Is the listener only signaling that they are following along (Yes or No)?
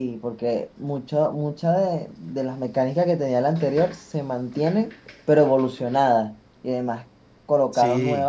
Yes